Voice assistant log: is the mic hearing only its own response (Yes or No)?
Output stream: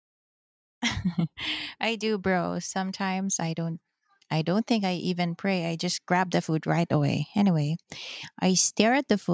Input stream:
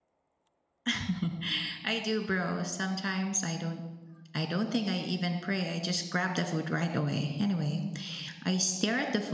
Yes